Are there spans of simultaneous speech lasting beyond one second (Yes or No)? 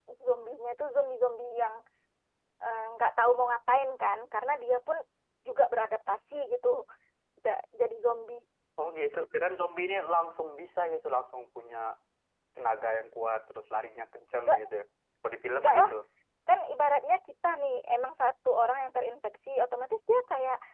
No